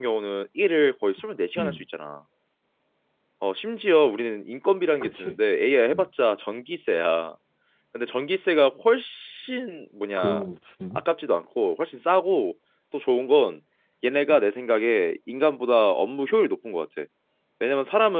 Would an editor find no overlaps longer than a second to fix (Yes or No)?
Yes